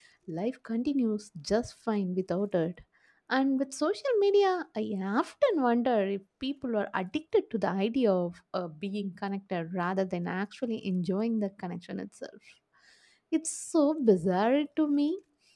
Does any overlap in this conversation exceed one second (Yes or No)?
No